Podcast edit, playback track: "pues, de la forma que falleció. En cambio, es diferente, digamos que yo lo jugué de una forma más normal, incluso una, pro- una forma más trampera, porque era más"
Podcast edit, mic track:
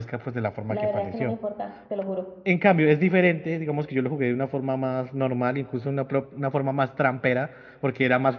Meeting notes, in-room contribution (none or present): present